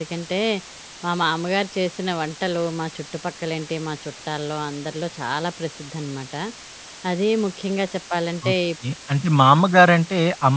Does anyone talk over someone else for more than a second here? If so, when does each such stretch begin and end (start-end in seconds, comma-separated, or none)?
none